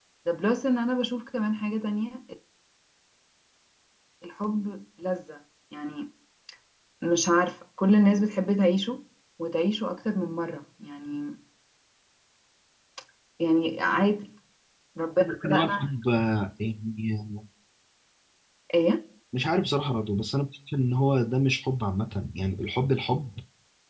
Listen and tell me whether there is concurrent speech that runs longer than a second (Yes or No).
No